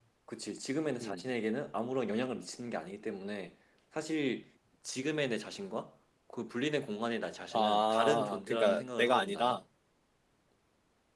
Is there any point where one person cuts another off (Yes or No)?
Yes